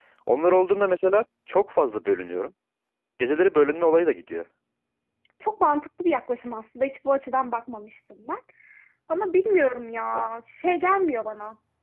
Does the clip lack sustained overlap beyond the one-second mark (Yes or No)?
Yes